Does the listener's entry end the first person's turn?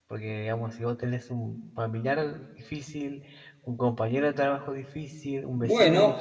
Yes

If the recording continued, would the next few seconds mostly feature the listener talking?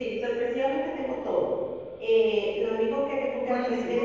No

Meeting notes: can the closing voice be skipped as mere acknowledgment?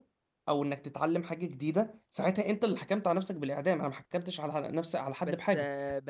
No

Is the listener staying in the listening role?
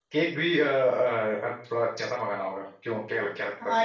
No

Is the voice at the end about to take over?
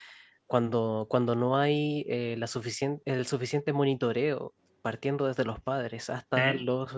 No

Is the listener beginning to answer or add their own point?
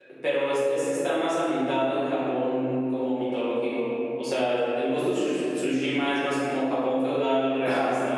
Yes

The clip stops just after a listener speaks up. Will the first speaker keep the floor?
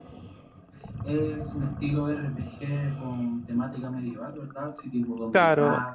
No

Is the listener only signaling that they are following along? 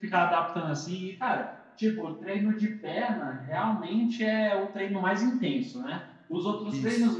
Yes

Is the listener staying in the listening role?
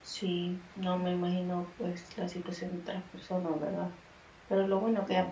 Yes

